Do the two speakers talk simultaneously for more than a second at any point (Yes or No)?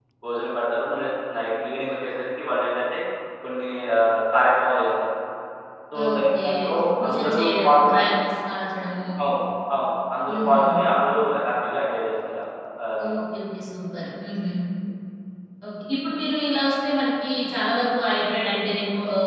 Yes